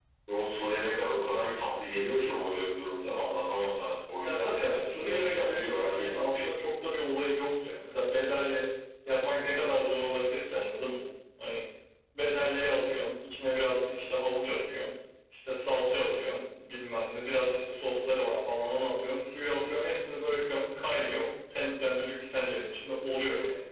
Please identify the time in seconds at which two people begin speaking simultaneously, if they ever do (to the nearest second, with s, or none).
4 s